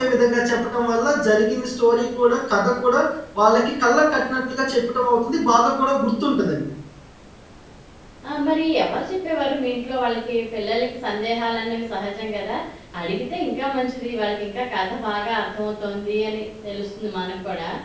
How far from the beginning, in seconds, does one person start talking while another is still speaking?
none

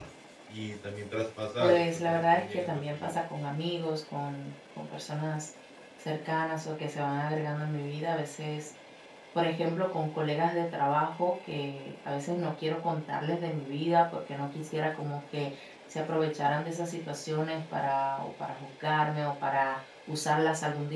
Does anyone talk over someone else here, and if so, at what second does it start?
1.6 s

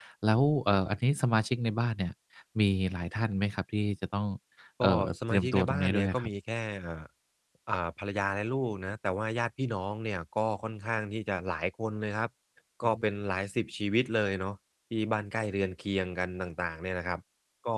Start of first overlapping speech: 4.8 s

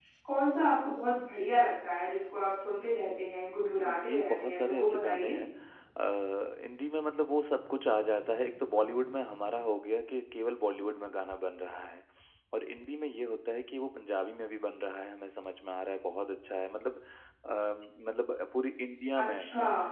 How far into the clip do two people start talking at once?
4.0 s

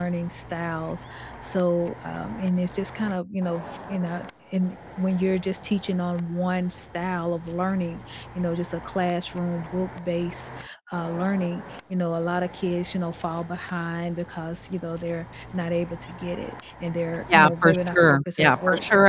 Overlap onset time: 17.3 s

